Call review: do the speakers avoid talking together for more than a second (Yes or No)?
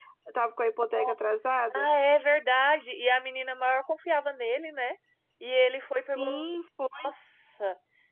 Yes